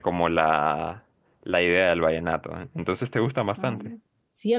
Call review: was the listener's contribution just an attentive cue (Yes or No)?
No